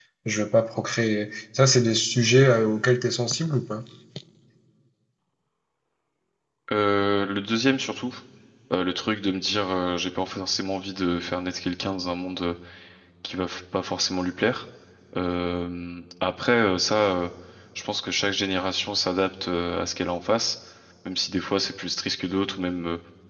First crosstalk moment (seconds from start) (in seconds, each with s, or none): none